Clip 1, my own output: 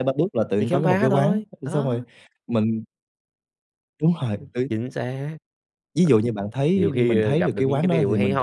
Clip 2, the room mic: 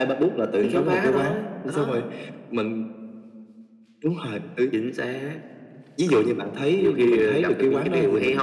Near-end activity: none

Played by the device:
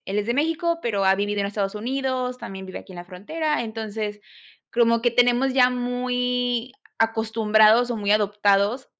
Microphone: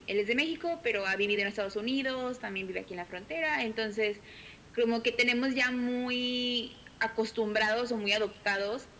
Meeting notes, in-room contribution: none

